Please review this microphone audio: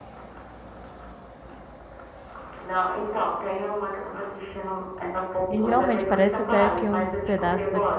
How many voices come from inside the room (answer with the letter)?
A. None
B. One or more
B